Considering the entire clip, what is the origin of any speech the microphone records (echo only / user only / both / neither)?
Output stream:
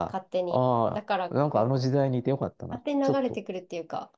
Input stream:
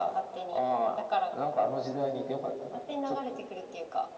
echo only